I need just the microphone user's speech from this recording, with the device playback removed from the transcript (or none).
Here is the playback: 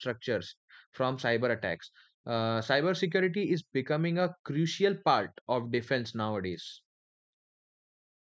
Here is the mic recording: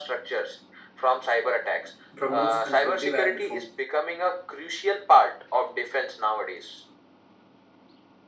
BrahMos and Prithvi air defense.